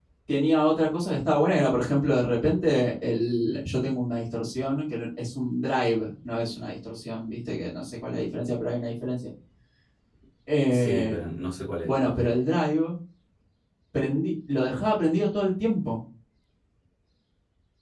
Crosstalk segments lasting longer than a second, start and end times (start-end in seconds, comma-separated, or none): none